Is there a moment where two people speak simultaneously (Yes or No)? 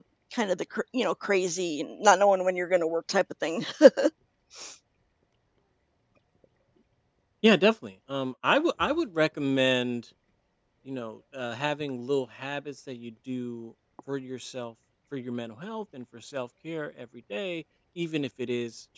No